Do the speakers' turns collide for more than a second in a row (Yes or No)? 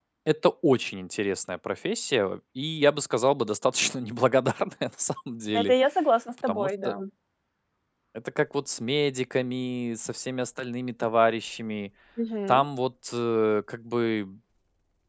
No